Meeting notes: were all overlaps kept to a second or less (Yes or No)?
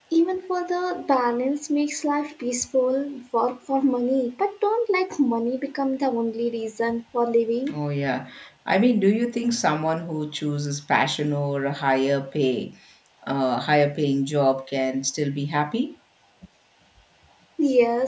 Yes